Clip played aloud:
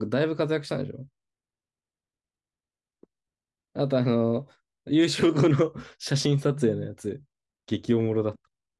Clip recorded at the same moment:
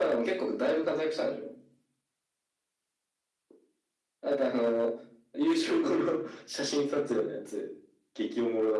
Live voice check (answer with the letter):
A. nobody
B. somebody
A